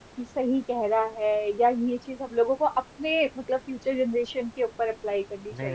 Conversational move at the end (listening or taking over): taking over